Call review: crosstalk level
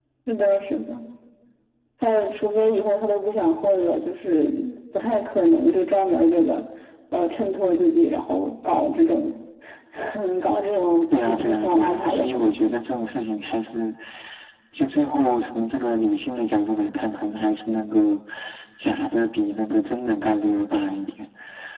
present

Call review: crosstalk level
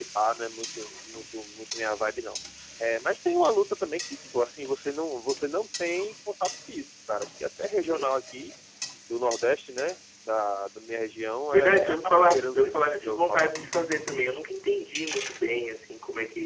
present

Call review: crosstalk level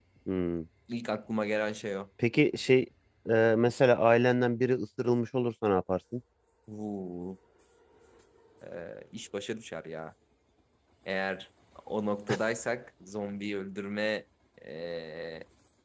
none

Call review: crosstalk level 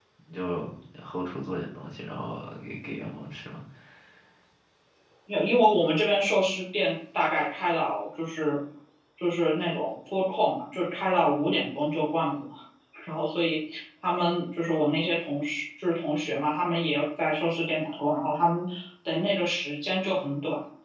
none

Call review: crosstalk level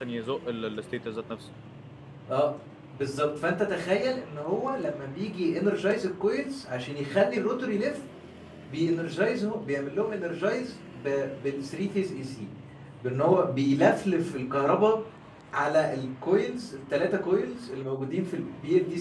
none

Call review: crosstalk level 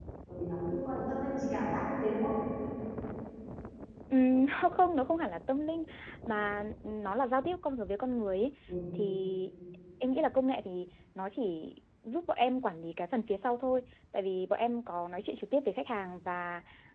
none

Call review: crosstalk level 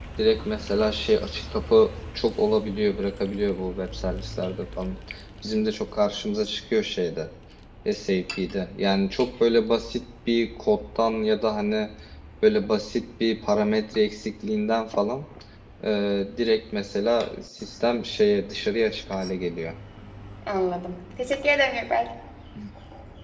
none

